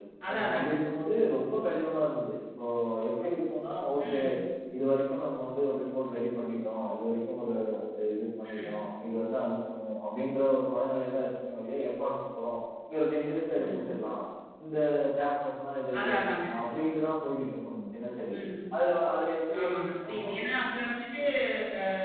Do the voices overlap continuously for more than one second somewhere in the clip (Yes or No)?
No